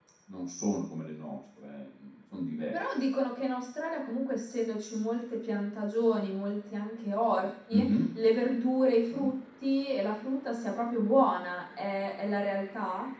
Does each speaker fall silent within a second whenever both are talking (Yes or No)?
Yes